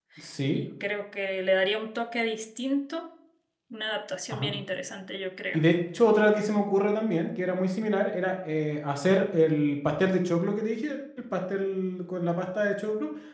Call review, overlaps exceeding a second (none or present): none